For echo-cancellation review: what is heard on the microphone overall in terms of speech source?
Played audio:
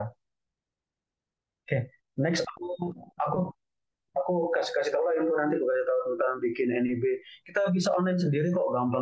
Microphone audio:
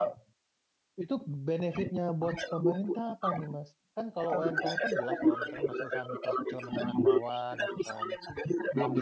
both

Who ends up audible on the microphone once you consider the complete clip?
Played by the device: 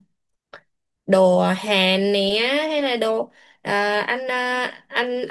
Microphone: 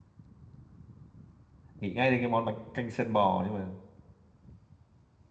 user only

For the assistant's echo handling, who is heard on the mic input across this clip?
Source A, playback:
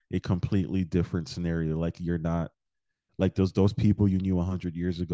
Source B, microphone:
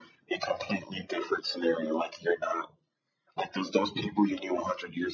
echo only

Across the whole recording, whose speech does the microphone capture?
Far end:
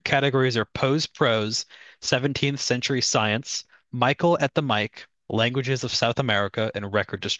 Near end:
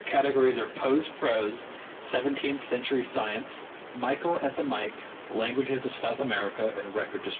echo only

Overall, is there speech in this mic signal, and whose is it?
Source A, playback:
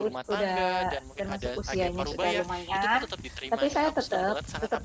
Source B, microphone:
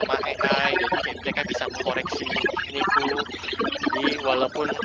both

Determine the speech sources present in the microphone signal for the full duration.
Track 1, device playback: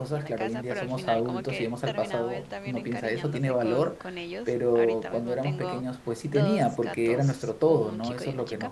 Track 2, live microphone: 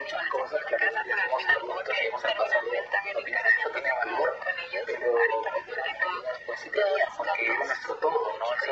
echo only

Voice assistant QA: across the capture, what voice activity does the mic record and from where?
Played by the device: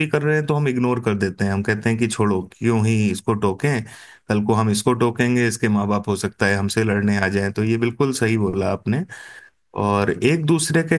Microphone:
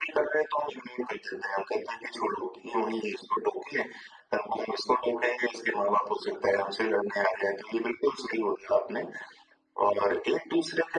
echo only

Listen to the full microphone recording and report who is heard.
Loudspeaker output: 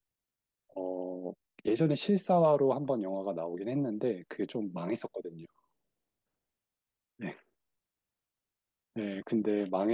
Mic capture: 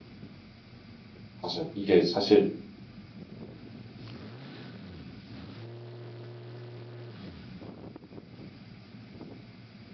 user only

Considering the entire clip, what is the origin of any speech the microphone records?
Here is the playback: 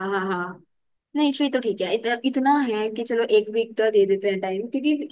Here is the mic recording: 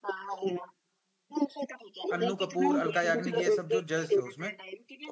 both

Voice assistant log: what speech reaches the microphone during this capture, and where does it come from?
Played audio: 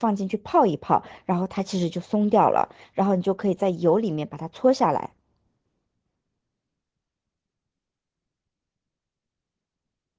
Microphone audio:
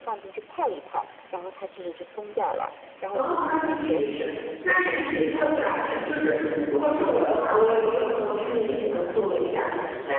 both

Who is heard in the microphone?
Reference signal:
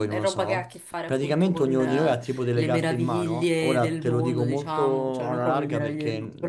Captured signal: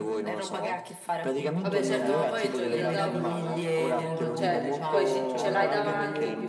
both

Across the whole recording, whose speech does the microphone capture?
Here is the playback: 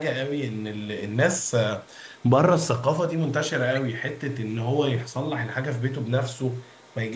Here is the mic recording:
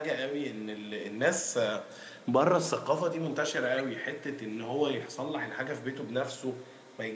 echo only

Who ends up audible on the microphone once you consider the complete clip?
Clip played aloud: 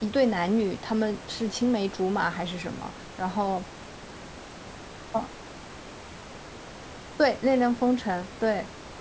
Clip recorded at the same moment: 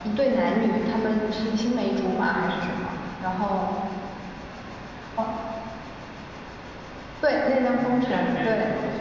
both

